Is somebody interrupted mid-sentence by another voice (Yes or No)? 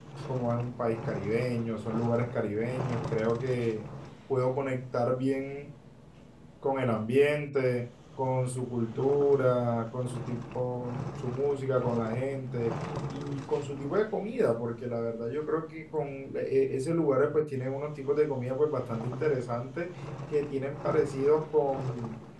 No